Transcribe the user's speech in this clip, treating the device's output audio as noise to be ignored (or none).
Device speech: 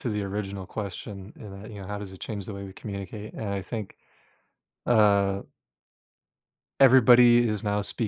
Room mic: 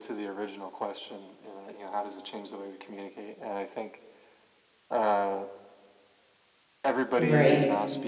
Right.